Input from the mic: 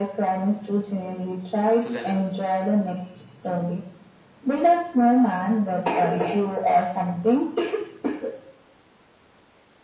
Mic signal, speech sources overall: both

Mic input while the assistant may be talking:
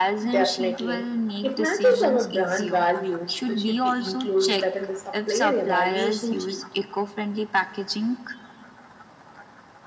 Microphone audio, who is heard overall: echo only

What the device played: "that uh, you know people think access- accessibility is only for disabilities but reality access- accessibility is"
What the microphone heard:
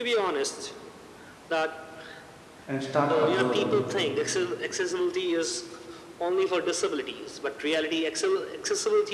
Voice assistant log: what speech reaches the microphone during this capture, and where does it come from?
both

